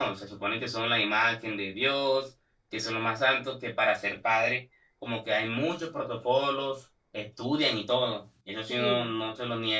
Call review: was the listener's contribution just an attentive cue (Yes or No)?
Yes